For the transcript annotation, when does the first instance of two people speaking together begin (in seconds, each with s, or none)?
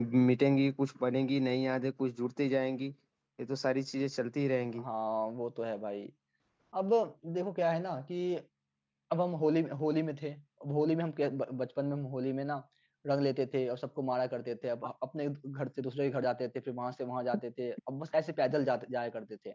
none